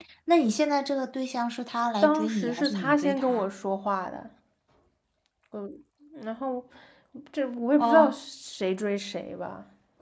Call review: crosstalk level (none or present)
present